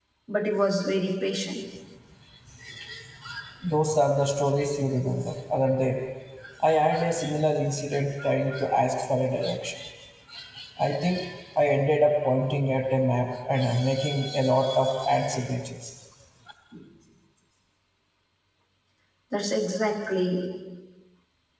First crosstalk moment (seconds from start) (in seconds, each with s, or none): none